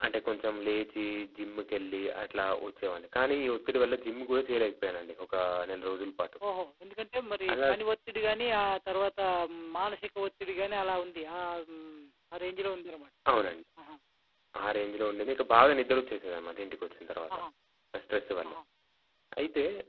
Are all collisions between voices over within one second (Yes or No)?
Yes